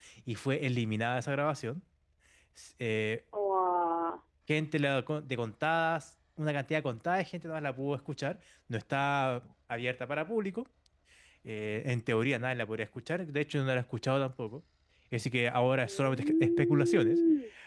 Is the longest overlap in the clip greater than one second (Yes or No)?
Yes